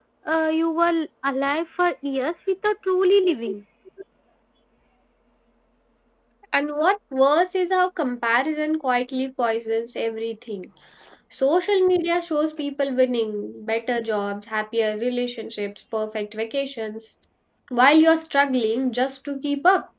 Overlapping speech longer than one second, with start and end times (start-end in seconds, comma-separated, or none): none